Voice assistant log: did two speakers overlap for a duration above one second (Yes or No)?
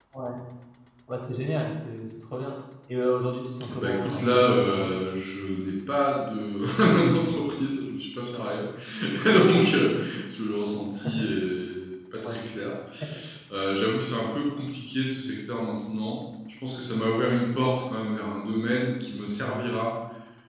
Yes